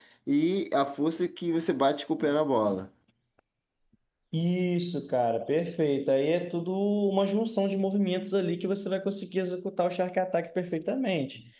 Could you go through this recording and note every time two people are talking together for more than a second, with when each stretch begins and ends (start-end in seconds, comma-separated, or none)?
none